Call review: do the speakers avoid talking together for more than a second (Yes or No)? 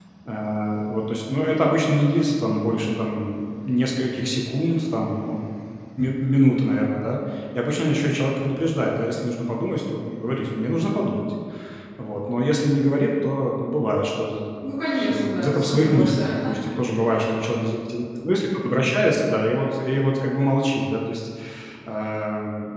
No